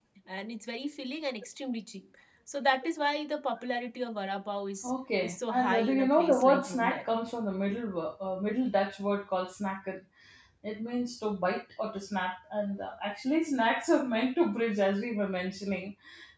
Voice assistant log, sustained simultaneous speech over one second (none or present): present